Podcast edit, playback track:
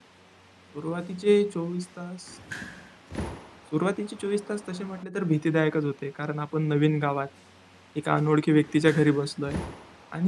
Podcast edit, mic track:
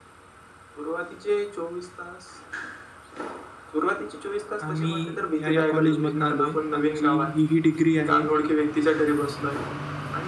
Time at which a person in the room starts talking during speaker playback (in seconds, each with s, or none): 4.6 s